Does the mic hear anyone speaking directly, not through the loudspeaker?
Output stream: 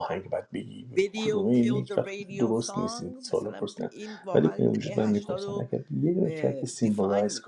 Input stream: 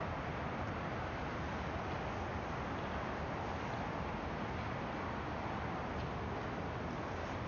No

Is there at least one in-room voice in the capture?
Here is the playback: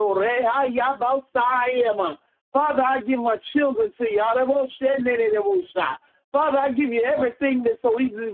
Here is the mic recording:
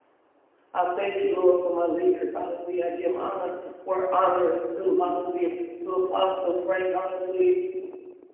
Yes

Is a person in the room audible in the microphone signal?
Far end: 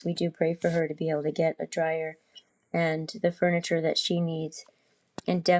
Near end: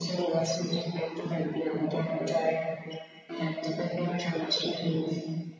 No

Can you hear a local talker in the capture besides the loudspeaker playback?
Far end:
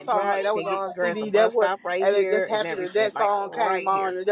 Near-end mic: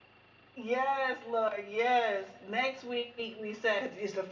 Yes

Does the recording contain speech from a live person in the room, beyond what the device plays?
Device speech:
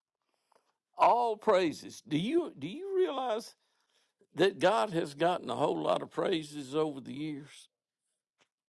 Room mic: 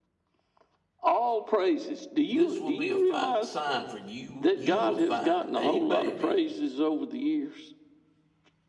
Yes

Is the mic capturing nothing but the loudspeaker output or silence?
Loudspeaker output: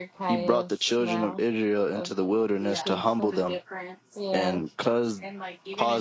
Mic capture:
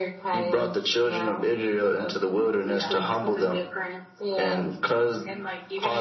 Yes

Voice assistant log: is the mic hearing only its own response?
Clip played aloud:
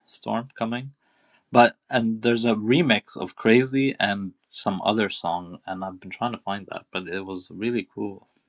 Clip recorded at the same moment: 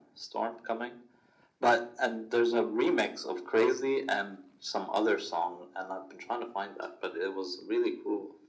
Yes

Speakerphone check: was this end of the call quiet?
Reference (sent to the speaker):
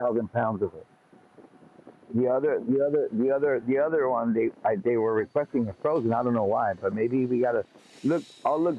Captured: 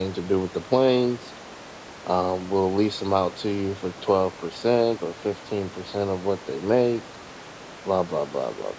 No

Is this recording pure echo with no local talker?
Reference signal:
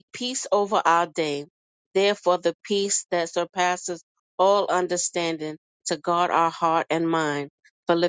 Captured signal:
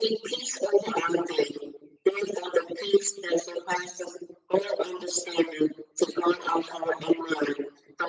Yes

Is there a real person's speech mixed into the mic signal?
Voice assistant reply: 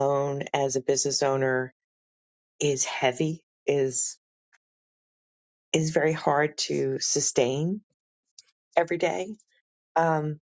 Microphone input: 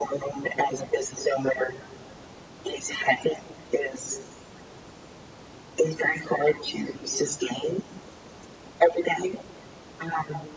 No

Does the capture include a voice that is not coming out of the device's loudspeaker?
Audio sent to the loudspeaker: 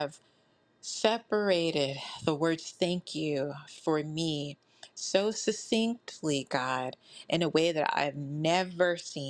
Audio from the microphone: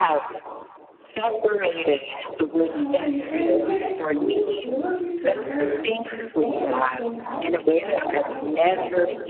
Yes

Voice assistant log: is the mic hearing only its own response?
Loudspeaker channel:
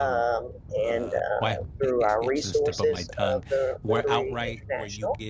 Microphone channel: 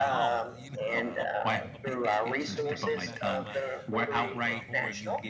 No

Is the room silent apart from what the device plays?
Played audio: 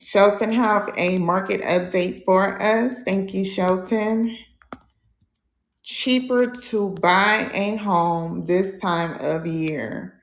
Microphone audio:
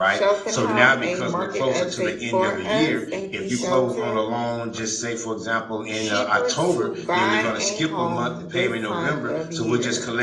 No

